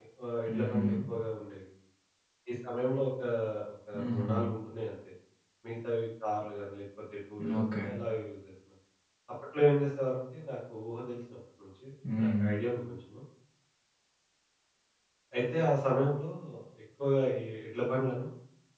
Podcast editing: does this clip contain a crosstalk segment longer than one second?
No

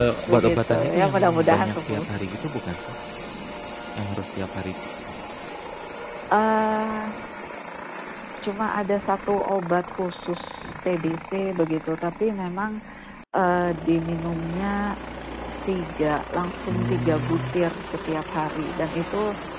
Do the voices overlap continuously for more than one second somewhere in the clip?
Yes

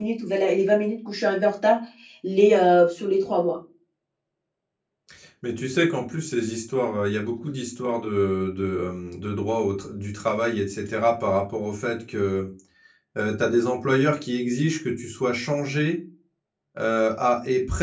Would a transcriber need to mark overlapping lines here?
No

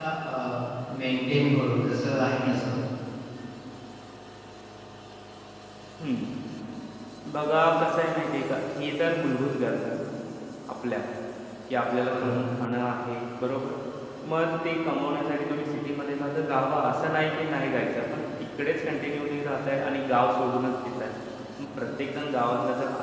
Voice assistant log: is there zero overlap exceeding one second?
Yes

